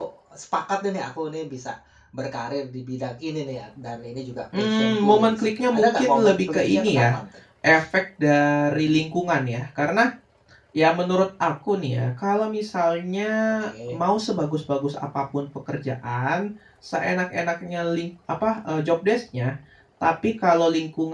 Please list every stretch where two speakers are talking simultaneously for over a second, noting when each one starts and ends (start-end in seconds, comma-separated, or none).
4.6-7.2